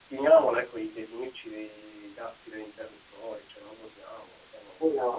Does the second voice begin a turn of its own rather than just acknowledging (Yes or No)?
Yes